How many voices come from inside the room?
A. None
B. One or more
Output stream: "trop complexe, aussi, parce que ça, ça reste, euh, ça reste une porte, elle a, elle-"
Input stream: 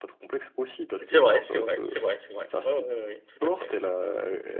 B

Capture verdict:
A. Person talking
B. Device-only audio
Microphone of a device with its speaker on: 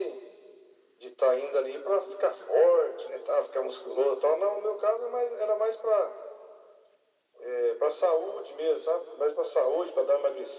B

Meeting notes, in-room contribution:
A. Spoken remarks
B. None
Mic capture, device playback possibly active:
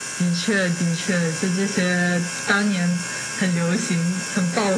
B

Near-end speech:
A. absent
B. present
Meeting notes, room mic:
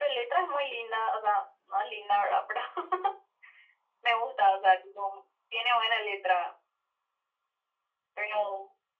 A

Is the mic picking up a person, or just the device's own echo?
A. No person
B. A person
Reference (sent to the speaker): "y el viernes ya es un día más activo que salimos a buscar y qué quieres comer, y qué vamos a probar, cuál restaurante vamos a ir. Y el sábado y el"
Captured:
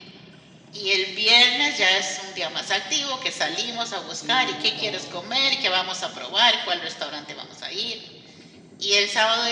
B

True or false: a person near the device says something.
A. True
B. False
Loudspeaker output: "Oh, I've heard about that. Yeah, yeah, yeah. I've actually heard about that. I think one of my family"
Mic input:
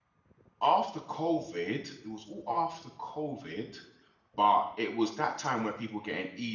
A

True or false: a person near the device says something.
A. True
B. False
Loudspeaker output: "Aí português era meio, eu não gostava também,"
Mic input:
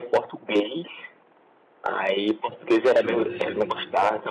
A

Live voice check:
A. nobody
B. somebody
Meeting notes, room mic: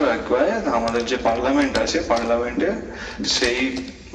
A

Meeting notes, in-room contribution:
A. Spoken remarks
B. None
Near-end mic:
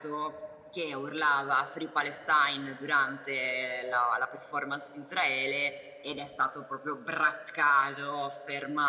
B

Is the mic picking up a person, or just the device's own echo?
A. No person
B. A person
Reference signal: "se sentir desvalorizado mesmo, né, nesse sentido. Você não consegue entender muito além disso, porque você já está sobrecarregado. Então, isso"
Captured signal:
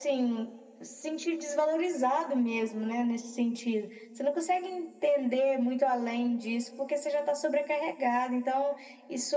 A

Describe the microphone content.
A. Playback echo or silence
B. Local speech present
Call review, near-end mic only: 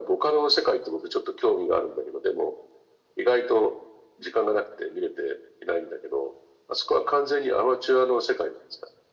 A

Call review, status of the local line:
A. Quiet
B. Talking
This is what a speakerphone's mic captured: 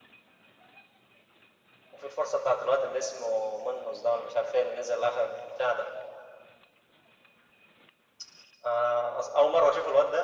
A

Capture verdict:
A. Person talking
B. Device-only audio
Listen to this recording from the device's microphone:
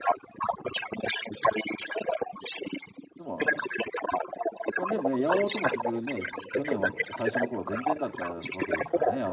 A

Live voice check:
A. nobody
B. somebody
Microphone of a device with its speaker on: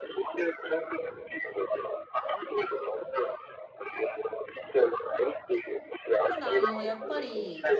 B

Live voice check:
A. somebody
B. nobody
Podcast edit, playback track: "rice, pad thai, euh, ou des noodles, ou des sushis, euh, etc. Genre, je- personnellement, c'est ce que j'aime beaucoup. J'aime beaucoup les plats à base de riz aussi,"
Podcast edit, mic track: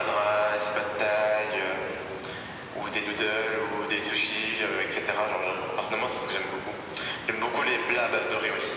B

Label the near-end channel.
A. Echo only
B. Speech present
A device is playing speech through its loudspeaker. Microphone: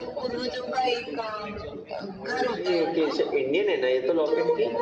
B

